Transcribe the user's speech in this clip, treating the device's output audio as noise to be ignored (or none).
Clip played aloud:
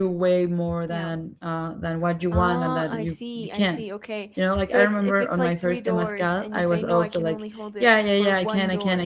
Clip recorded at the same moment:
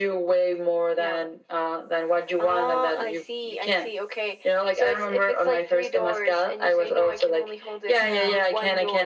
Yeah.